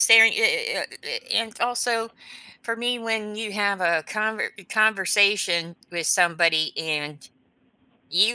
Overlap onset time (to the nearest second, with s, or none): none